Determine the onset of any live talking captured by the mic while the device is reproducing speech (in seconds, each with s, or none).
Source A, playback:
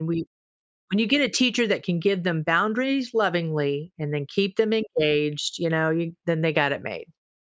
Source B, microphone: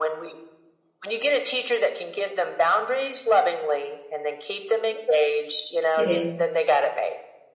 6.0 s